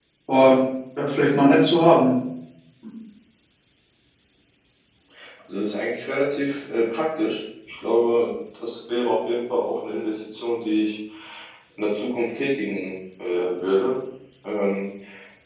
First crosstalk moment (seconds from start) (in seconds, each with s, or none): none